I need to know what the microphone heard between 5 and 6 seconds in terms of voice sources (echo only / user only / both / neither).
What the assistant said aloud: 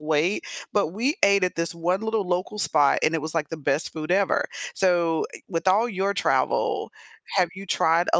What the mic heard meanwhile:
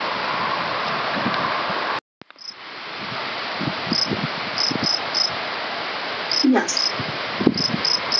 neither